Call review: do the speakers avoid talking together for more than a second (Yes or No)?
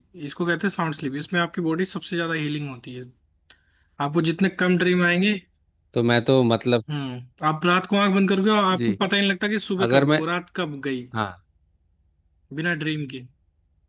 Yes